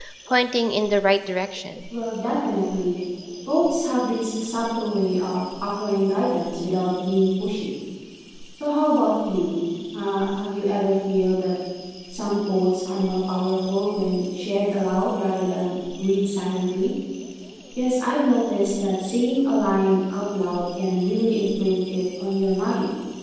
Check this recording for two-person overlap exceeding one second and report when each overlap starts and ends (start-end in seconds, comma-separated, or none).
none